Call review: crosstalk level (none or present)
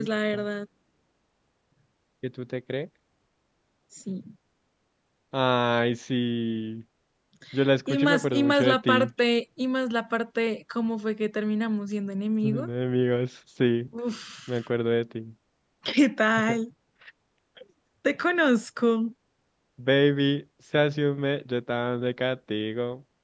present